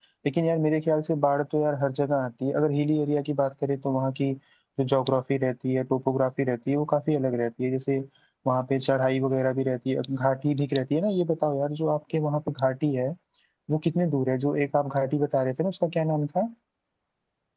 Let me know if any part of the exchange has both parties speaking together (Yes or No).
No